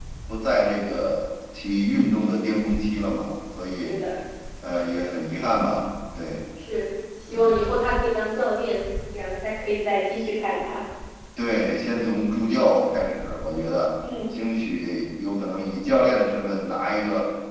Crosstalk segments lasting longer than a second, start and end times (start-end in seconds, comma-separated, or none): none